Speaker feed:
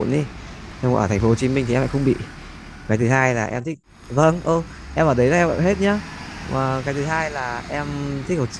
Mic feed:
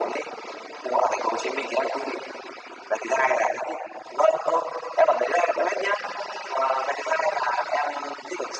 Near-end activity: none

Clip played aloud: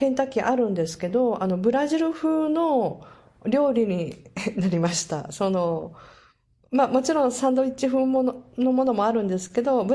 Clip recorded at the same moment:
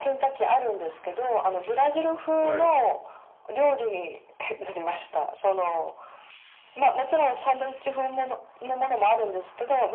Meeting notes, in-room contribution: present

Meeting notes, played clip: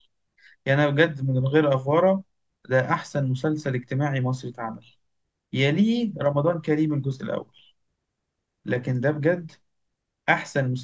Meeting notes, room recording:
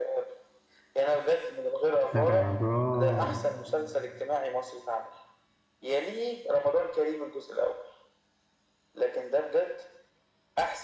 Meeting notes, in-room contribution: present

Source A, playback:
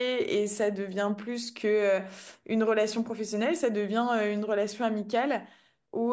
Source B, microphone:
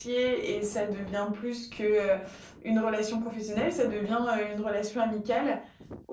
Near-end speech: none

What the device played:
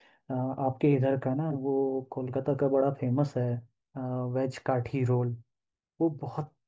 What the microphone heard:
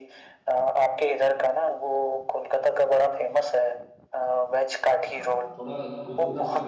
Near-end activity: present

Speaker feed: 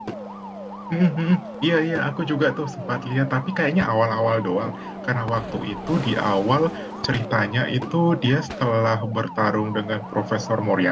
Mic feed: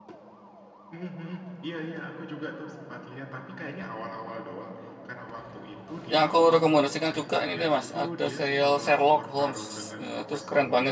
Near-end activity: present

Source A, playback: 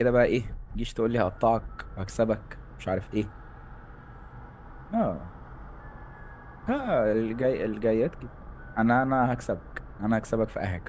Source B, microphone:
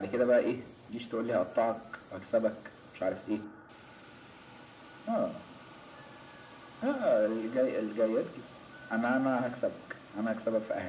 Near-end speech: none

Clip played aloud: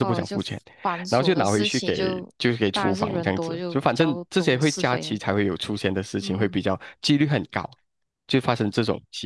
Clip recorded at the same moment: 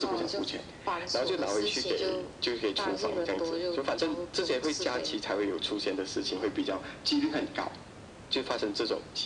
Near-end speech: none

